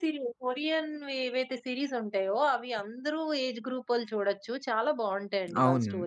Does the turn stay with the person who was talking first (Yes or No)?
No